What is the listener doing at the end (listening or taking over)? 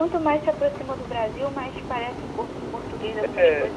taking over